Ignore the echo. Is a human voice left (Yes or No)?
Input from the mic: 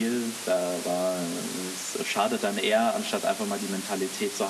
No